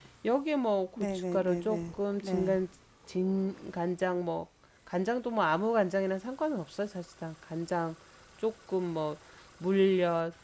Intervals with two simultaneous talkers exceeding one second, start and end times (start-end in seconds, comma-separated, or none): 1.0-2.6